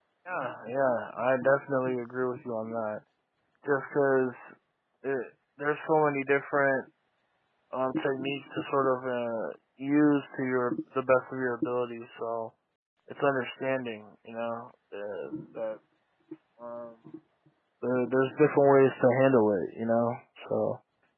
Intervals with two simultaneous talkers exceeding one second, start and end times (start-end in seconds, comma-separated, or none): none